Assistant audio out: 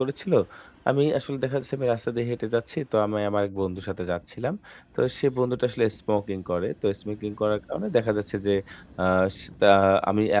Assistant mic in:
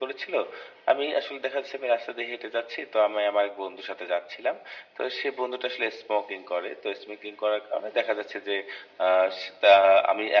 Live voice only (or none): none